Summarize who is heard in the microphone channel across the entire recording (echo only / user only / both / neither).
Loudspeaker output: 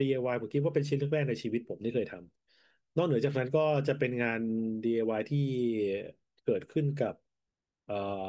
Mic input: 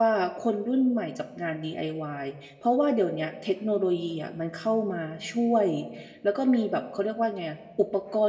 user only